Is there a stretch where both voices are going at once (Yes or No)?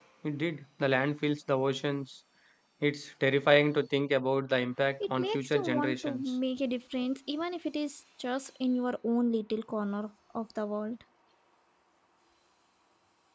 Yes